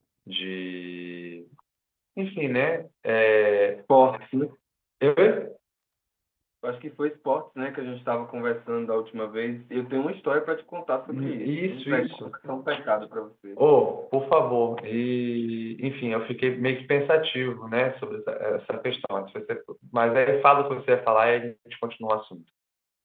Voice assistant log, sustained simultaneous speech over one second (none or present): present